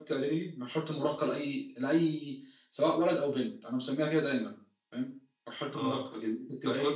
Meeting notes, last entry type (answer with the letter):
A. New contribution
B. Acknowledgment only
A